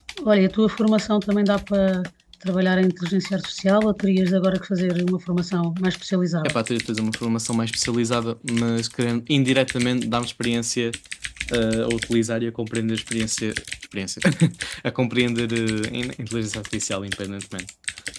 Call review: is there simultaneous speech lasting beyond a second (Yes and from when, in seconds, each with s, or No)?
No